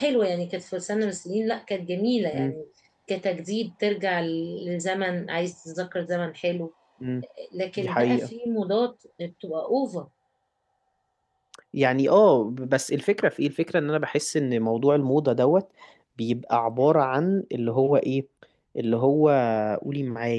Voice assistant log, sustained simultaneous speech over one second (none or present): none